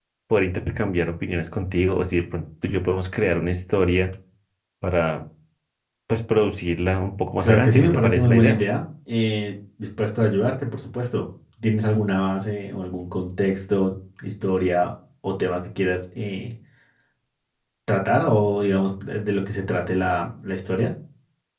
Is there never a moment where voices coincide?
No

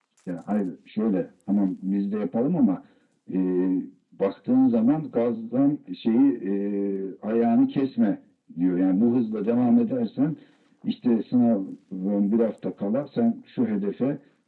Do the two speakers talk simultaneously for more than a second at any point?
No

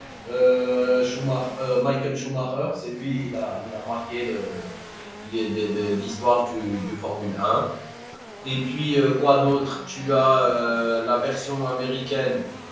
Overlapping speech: No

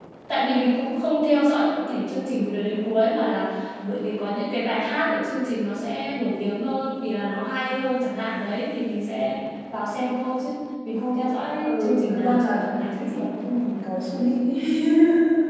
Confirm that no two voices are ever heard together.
No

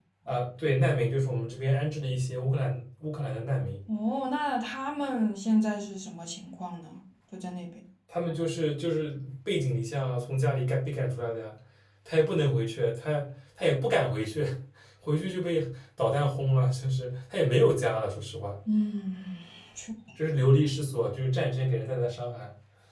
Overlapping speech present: No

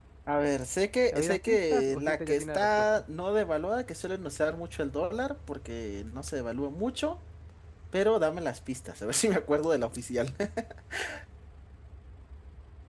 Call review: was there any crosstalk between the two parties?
Yes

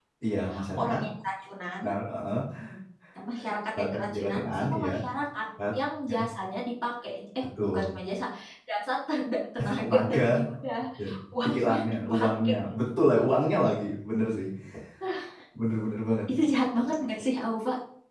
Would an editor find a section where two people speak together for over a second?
Yes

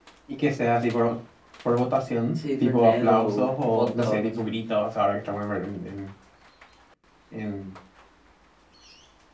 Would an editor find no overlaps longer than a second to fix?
No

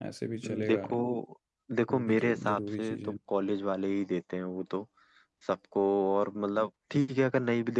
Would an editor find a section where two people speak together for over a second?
Yes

